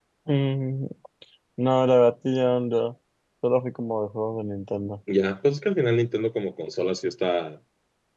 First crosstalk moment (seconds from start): none

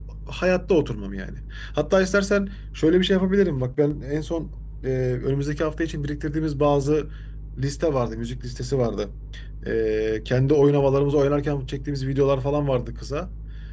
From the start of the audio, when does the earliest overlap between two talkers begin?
none

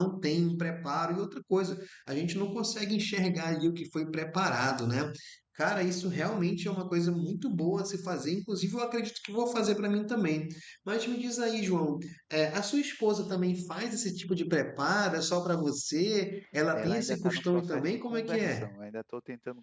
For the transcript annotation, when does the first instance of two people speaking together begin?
16.7 s

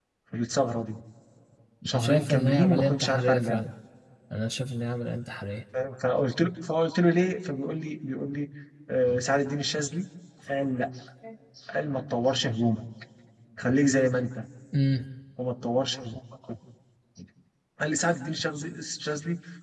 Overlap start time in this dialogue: 2.0 s

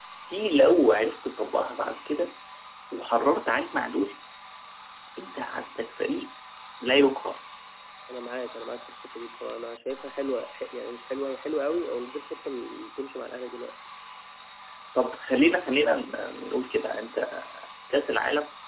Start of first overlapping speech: none

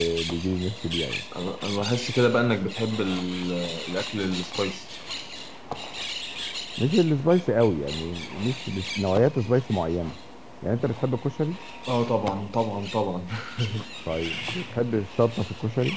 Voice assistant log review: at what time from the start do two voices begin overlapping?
none

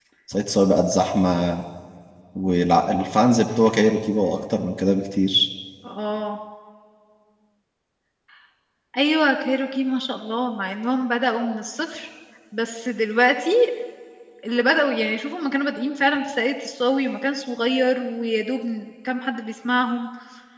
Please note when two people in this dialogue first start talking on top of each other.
none

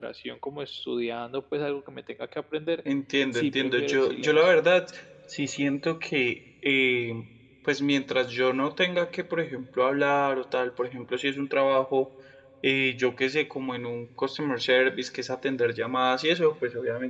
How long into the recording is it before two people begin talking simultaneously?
3.3 s

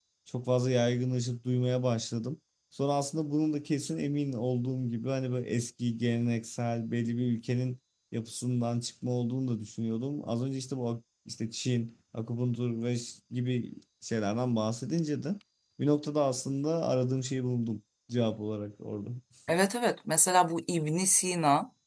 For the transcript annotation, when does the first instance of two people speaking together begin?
none

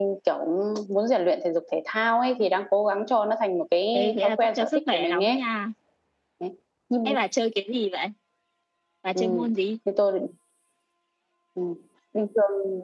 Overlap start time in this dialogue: 3.9 s

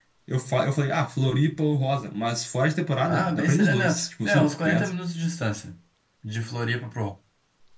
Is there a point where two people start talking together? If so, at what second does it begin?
3.0 s

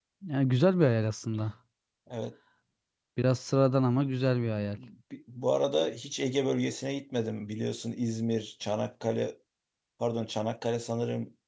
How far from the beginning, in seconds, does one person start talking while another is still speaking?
none

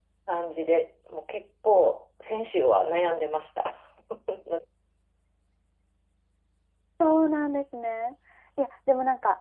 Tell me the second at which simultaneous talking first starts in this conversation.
none

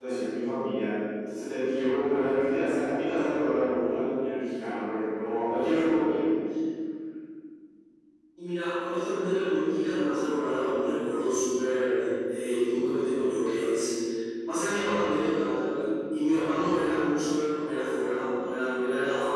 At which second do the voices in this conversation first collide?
none

